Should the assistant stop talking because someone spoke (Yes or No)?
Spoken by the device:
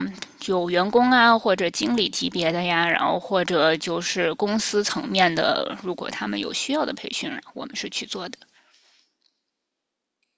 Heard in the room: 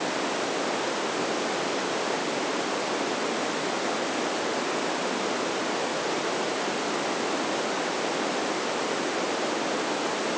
No